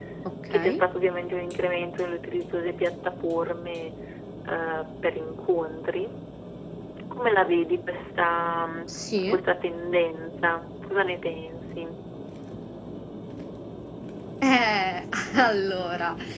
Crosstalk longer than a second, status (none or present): none